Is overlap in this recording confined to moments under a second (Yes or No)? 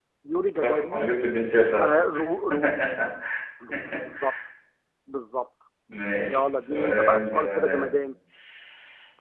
No